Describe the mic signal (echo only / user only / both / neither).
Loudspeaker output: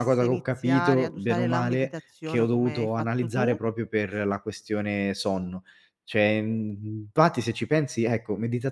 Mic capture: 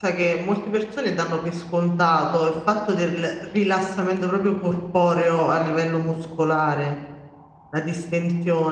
user only